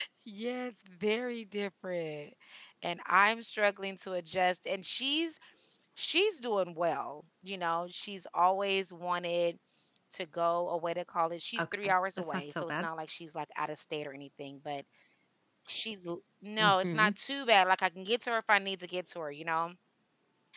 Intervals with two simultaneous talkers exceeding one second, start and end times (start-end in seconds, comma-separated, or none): 11.6-12.9